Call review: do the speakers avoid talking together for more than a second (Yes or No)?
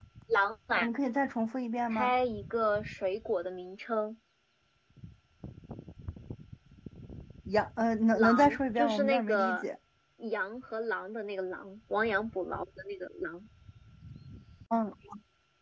No